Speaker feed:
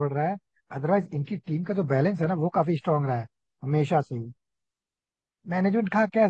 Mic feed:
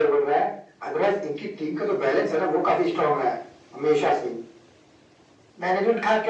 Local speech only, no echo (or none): none